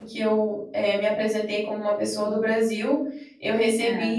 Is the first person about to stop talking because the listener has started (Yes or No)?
No